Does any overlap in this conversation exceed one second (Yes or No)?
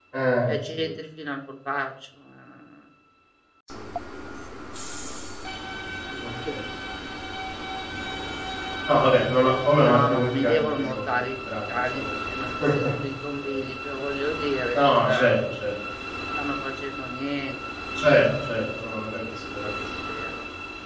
Yes